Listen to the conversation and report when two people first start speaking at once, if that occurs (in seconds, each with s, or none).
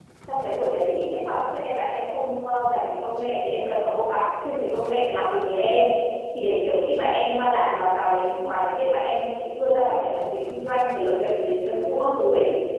none